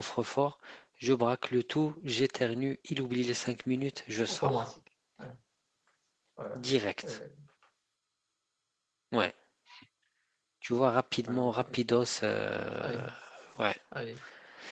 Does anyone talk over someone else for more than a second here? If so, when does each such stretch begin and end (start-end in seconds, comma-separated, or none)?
none